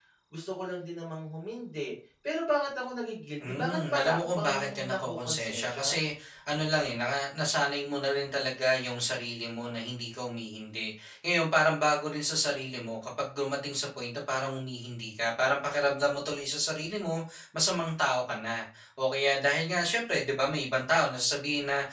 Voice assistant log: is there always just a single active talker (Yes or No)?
No